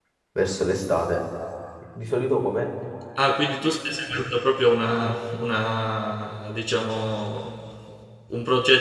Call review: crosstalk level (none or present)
none